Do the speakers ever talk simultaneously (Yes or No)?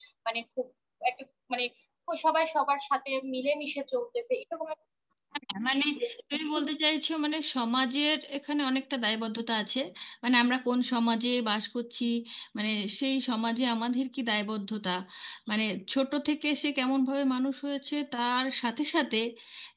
No